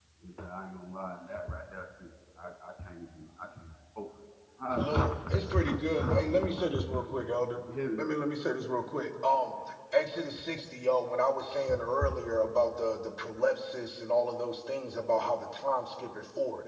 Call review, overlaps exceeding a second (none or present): present